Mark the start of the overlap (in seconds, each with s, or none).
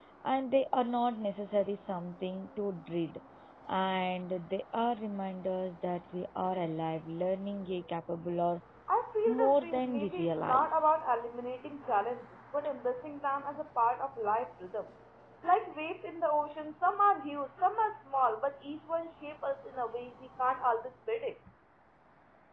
9.3 s